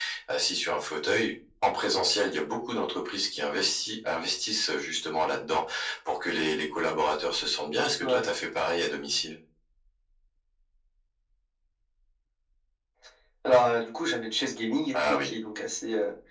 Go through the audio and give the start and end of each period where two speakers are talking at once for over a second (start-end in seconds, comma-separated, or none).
none